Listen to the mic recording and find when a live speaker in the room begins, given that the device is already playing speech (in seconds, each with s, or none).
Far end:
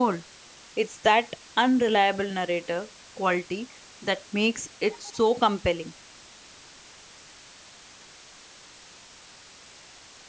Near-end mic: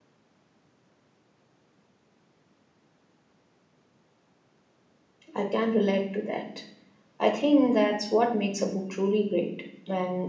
5.3 s